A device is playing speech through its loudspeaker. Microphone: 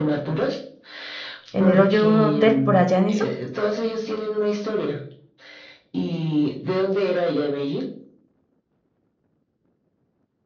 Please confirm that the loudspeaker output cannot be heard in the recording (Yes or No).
No